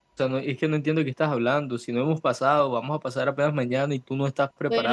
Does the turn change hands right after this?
Yes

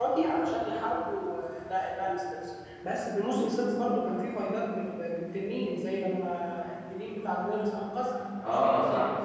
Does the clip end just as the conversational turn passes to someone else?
Yes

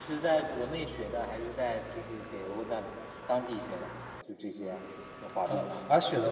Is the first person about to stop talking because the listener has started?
Yes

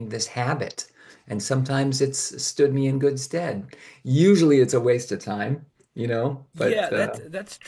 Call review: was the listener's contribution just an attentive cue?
No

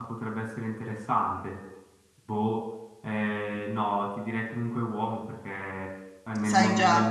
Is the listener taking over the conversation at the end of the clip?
No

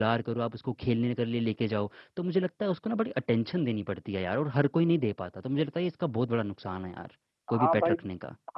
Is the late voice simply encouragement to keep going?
No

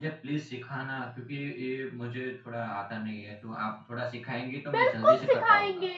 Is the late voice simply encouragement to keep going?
No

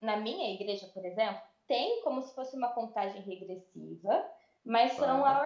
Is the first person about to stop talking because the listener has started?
No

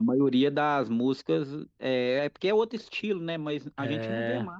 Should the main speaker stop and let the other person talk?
No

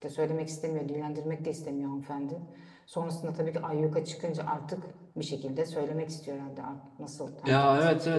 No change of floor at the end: No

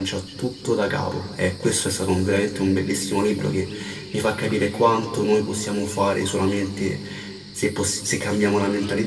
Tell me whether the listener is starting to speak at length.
Yes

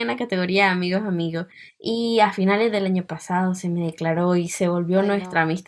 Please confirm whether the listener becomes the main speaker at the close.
No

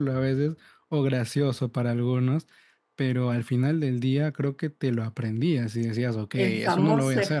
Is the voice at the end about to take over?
Yes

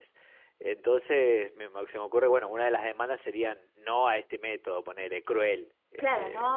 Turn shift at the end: Yes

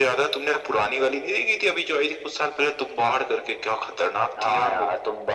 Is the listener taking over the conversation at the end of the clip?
Yes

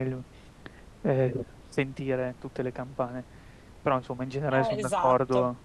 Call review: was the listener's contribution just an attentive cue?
Yes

